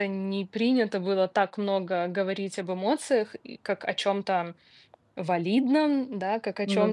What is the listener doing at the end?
listening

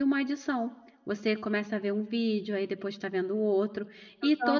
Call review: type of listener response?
listening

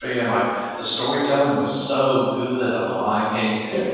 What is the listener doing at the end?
listening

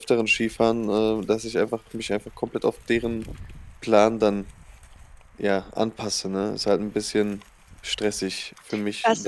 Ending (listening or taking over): taking over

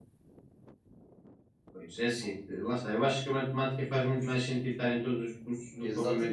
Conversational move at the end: taking over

